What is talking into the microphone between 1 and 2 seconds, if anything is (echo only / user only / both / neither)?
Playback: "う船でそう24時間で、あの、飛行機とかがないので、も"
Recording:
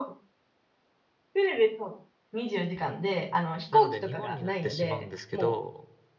echo only